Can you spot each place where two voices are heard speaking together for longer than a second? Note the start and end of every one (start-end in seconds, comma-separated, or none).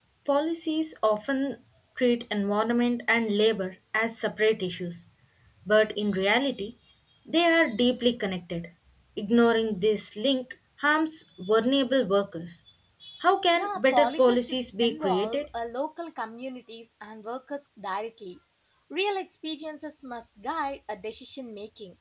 13.6-15.5